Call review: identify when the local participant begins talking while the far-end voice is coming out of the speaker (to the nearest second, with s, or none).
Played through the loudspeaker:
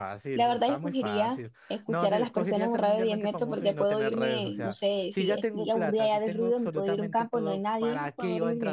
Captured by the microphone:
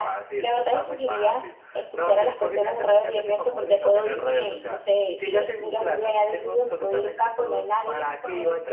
none